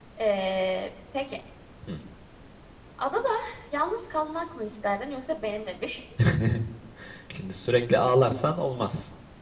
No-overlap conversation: Yes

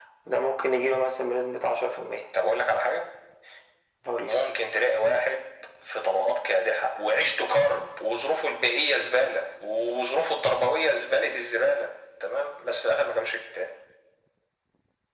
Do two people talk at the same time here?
No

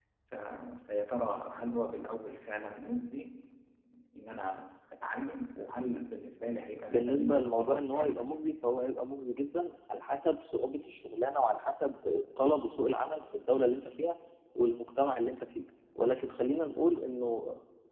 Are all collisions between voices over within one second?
No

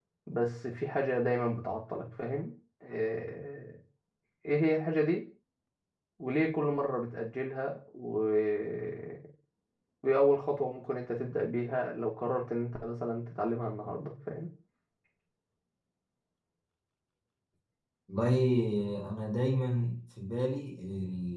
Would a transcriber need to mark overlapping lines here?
No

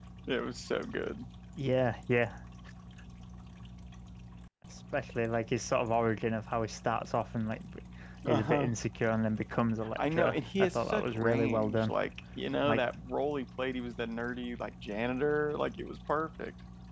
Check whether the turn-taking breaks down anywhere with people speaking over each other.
Yes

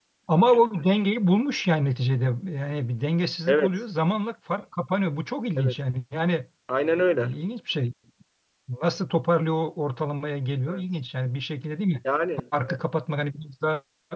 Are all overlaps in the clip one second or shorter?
Yes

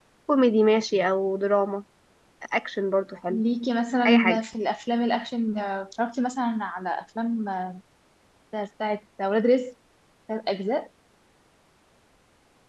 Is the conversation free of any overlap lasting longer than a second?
Yes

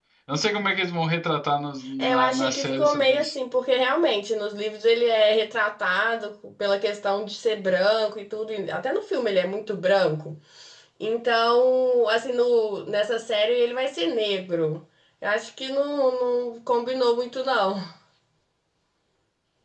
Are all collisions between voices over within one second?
No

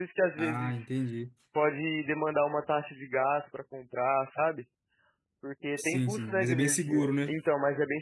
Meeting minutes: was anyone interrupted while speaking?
Yes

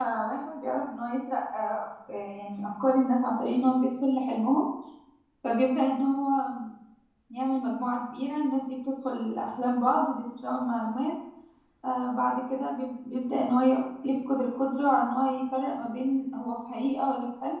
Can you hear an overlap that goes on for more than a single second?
No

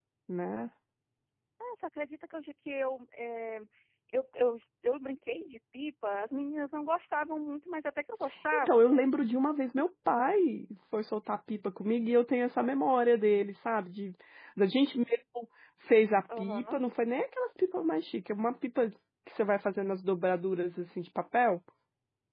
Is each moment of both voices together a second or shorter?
Yes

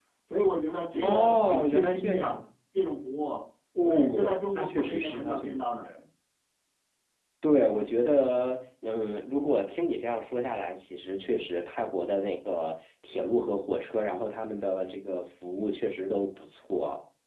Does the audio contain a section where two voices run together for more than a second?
Yes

